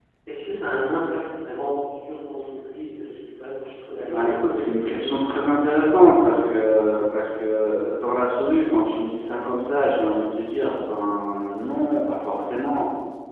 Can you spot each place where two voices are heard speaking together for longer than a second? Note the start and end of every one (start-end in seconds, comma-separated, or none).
4.0-5.3